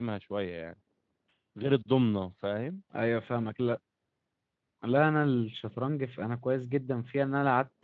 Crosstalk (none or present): none